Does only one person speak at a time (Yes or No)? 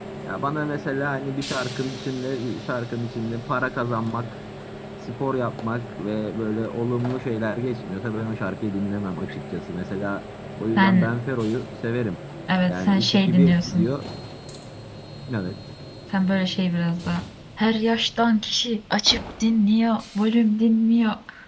No